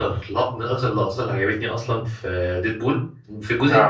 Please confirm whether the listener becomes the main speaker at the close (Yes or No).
No